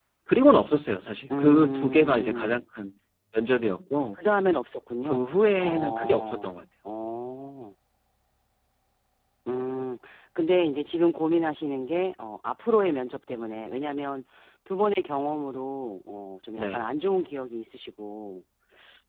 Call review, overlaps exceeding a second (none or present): present